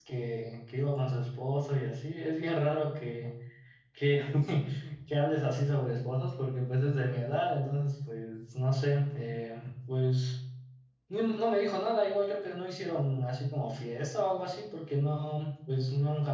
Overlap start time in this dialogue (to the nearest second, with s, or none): none